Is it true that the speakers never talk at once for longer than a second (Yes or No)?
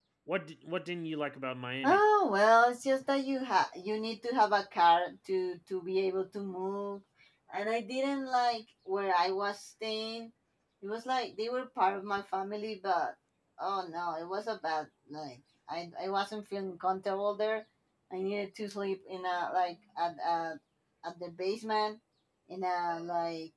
Yes